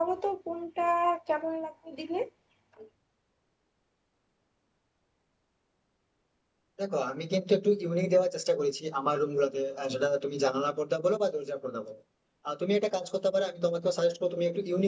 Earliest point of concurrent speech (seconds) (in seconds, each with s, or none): none